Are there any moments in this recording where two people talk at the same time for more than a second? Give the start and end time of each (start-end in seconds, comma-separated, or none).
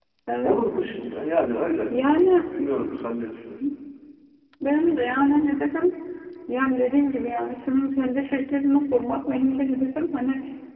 none